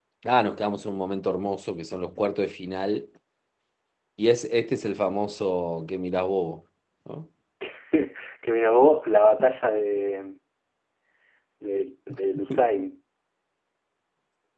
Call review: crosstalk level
none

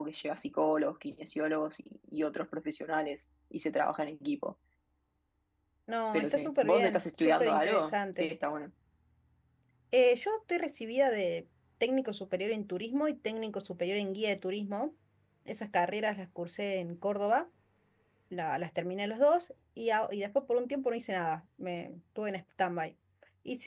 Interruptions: present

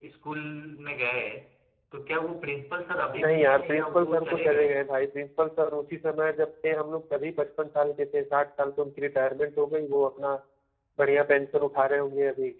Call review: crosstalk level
present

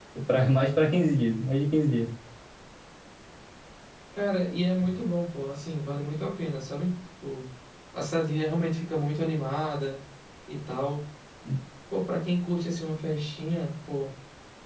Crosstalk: none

